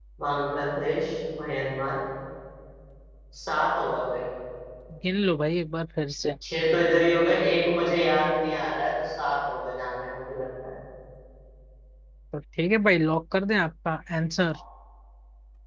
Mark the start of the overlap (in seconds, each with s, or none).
none